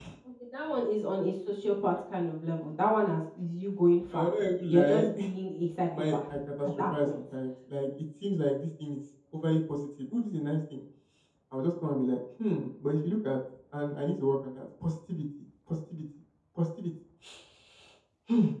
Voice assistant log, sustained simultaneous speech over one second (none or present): present